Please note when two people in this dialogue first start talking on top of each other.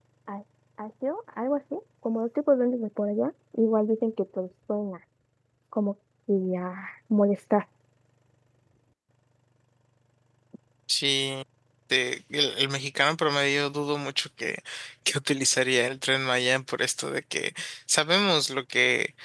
none

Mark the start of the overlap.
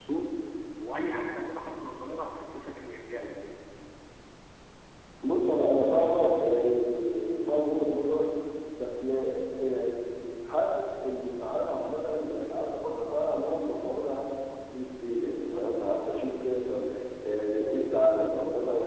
none

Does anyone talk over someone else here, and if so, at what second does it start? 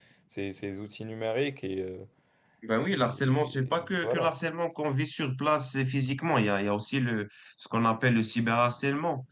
2.8 s

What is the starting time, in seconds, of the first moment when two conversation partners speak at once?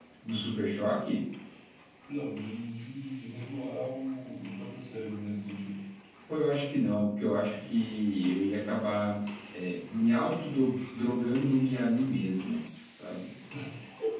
none

